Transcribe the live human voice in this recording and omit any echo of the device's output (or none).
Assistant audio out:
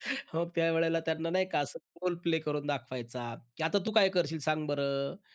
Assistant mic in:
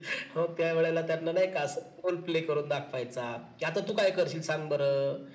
none